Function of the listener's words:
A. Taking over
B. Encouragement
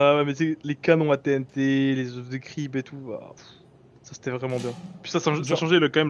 B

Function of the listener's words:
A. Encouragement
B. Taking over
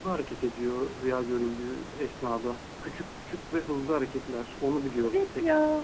B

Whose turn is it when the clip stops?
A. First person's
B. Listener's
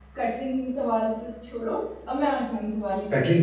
B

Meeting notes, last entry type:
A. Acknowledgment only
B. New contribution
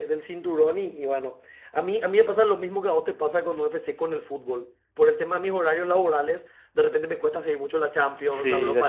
B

